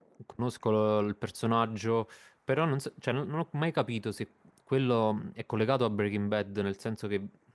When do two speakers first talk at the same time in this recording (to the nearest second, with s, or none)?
none